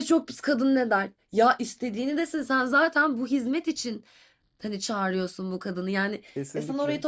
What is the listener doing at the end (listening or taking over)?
listening